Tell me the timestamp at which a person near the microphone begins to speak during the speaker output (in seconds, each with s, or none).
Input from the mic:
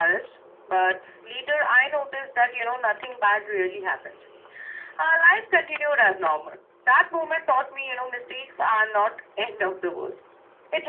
none